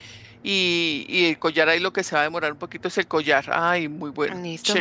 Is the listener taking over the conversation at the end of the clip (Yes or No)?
Yes